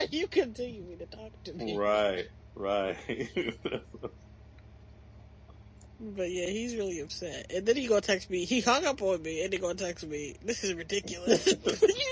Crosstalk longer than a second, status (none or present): none